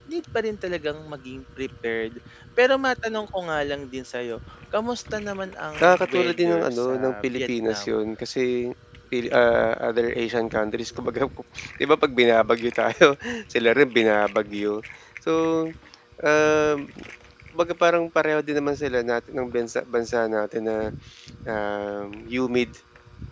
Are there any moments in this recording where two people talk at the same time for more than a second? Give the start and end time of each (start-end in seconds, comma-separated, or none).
5.8-8.0